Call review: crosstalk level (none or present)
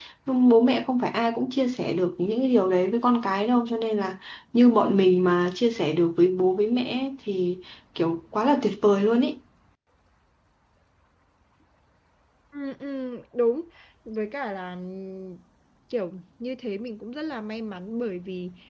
none